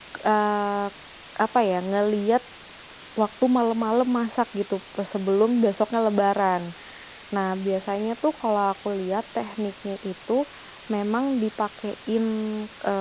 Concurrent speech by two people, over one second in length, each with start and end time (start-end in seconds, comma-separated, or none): none